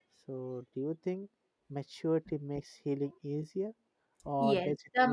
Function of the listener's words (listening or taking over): taking over